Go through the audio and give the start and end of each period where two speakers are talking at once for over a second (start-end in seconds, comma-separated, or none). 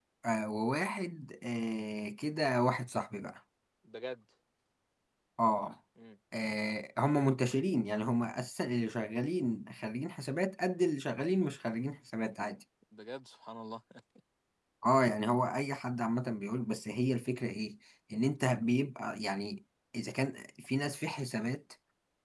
none